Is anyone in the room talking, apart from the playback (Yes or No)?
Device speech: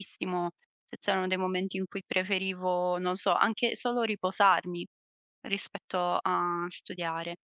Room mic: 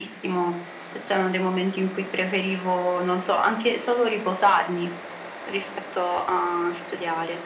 No